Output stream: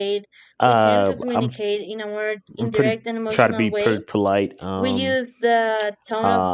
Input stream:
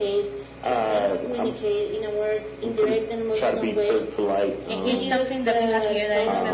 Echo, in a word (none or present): present